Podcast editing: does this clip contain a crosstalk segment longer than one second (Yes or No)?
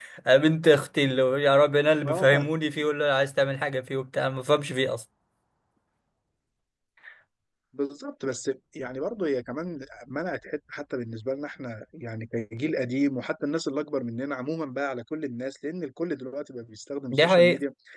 No